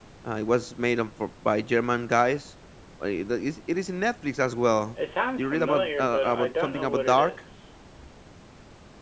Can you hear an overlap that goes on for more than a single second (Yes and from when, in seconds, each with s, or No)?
Yes, from 5.4 s